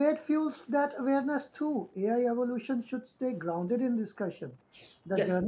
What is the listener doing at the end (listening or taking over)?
listening